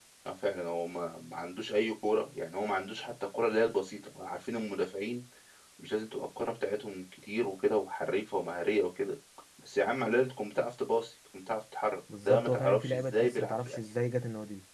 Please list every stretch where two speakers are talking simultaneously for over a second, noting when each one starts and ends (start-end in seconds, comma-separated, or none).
12.2-13.8